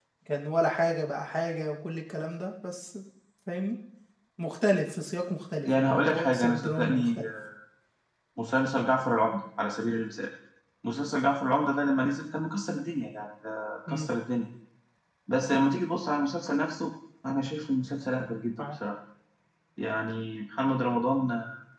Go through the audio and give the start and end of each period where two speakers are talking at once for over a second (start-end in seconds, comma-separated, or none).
5.7-7.2